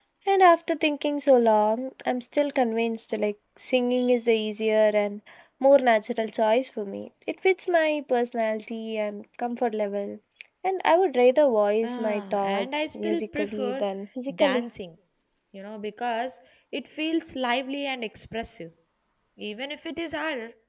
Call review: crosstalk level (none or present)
present